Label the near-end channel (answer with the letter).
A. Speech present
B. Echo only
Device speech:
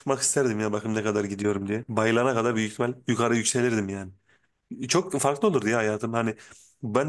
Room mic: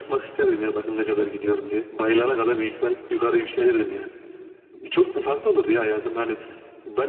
B